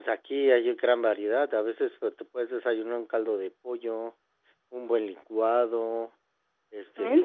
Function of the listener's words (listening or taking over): listening